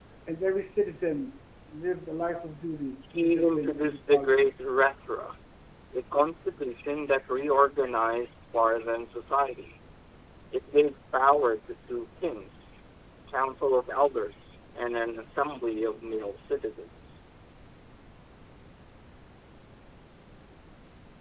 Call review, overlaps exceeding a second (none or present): present